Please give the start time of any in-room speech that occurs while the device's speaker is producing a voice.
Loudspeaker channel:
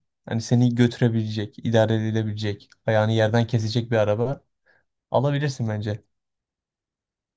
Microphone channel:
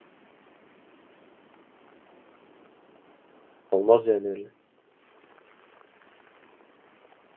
4 s

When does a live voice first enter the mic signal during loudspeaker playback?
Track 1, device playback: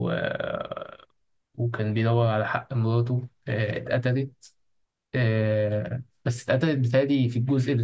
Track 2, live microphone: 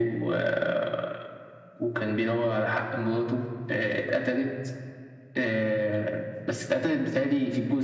none

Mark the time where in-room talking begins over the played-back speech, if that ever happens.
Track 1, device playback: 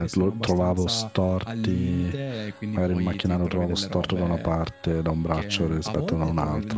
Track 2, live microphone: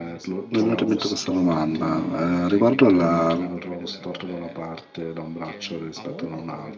0 s

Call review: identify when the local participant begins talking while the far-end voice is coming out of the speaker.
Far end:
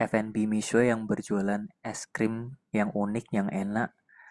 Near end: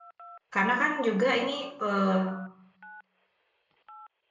1 s

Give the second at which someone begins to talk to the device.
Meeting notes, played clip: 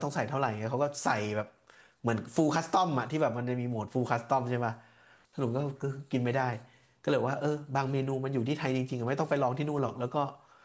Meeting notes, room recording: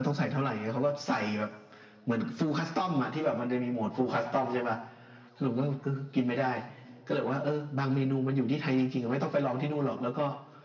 none

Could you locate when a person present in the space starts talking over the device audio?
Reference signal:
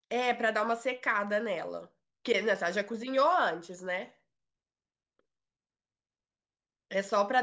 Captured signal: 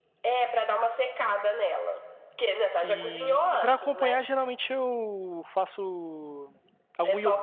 3 s

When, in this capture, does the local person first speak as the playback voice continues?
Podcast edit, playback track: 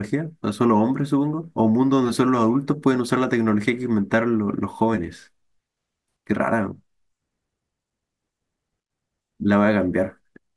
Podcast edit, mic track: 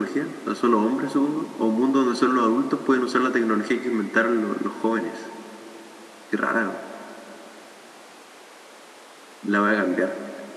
none

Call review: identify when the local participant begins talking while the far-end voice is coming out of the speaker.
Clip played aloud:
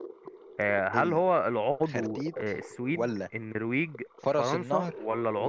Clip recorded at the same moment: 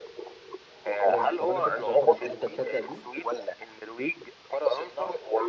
1 s

